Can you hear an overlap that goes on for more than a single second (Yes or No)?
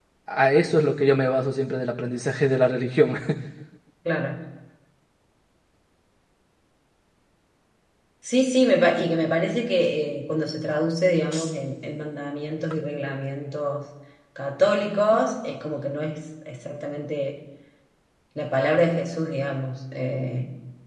No